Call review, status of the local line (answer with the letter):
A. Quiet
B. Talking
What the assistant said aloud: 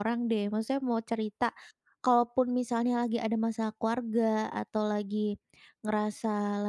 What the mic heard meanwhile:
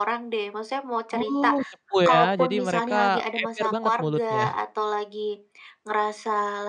B